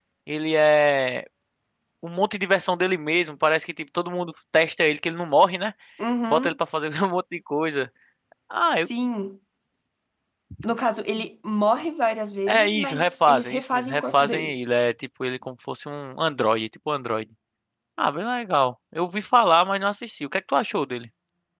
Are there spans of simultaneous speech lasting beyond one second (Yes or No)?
Yes